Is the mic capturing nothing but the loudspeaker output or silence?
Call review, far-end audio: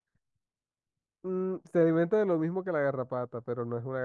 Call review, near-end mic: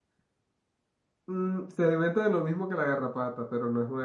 Yes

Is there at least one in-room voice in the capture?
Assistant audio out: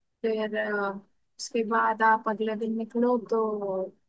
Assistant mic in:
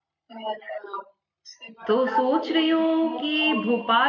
Yes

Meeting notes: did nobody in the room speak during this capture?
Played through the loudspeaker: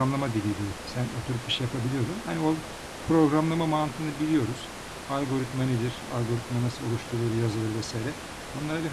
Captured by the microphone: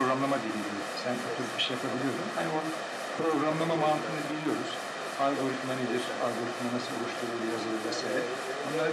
No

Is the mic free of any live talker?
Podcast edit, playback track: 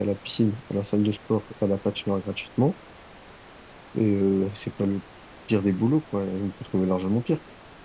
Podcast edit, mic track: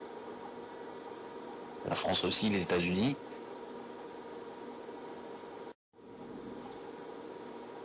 No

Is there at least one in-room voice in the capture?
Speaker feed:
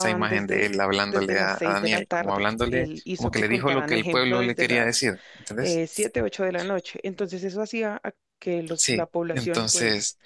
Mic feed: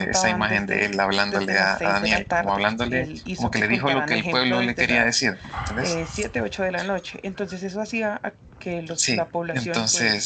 No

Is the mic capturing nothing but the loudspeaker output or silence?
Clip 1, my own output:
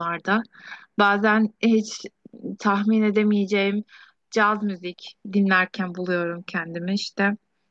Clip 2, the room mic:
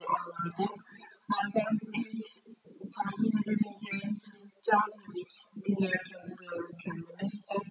Yes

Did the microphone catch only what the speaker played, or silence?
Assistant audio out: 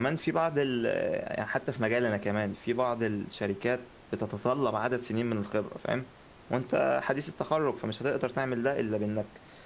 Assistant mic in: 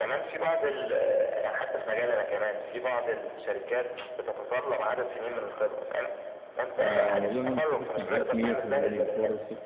No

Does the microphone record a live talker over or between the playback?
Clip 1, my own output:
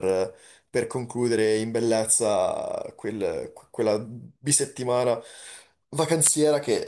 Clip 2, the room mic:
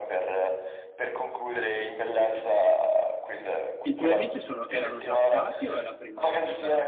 Yes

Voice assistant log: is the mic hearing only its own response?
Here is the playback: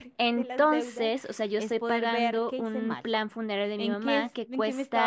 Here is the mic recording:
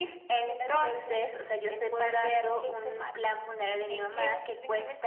Yes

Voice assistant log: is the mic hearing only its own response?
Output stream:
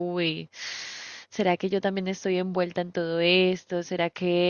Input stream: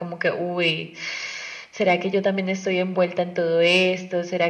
Yes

